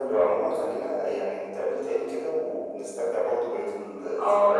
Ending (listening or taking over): taking over